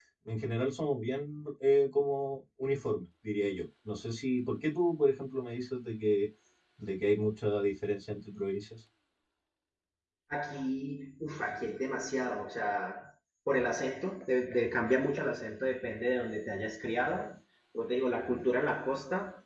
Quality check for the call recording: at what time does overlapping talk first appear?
none

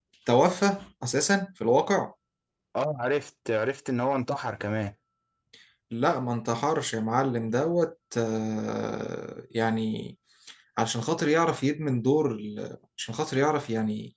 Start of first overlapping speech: none

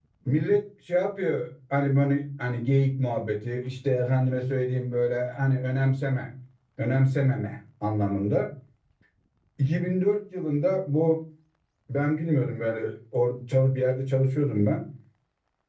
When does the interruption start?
none

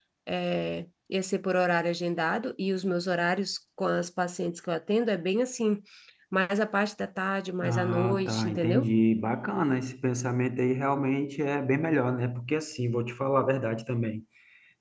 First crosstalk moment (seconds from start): 7.6 s

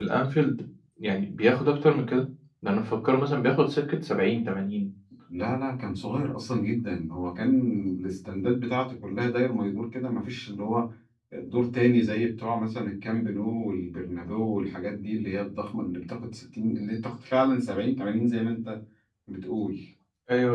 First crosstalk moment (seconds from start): none

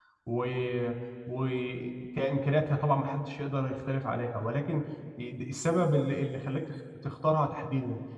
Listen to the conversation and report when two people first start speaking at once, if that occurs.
none

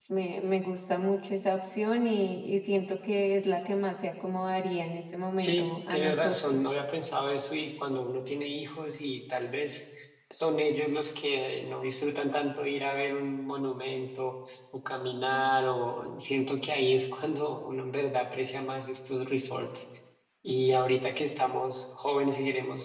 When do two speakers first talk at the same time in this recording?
5.4 s

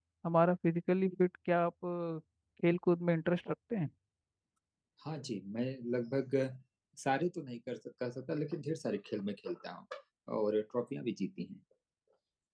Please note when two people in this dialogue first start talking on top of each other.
none

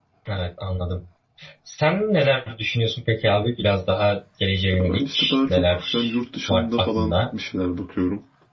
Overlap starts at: 4.7 s

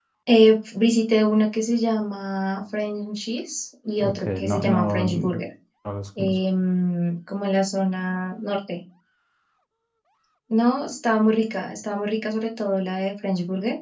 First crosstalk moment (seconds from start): 4.0 s

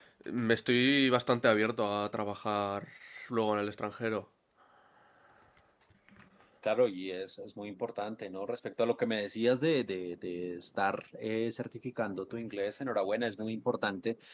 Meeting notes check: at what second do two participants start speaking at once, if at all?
none

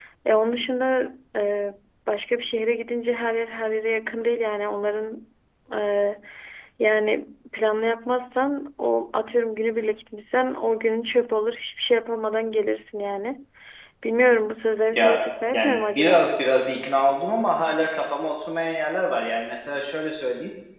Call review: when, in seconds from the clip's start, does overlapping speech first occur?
14.9 s

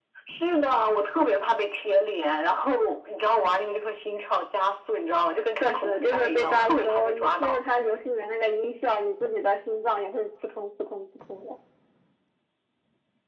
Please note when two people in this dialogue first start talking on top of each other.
5.5 s

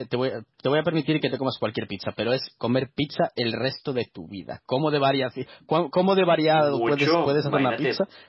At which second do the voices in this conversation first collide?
6.5 s

